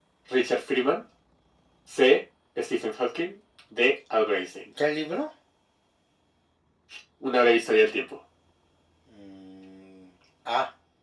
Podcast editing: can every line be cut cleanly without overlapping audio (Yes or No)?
Yes